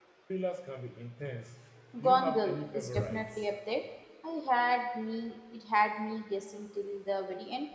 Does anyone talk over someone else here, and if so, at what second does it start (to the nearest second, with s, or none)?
2 s